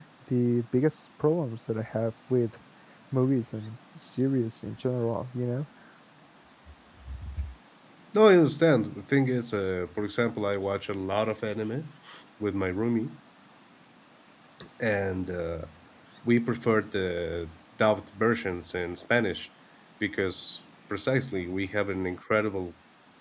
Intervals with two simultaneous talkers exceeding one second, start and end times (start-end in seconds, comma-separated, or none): none